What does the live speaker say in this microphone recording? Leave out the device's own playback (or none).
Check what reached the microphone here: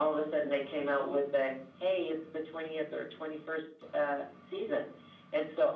none